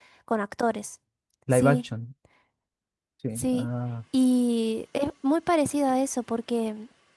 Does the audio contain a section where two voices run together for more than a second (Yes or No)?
No